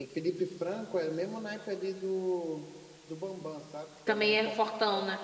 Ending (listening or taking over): taking over